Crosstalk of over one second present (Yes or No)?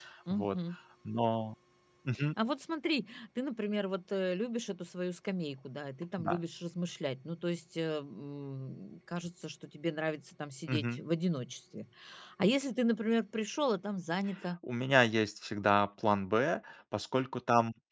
No